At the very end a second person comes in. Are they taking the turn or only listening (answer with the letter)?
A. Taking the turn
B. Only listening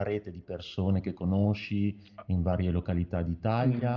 A